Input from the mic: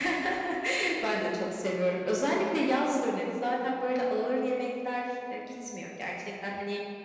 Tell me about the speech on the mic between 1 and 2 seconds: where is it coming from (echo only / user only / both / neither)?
echo only